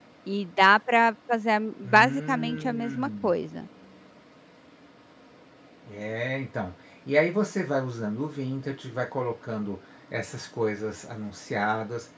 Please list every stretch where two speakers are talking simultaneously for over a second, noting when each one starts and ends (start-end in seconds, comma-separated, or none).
2.0-3.3